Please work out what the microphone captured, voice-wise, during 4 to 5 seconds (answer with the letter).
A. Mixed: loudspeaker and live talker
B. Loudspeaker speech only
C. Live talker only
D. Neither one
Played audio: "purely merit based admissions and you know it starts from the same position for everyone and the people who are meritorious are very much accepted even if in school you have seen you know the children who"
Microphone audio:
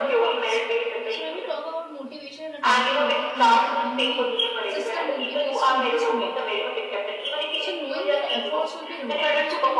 A